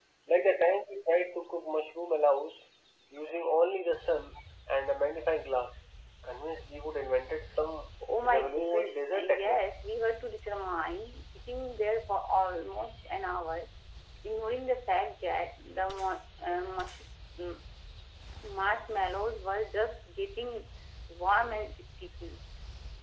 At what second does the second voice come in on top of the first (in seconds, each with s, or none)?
8.0 s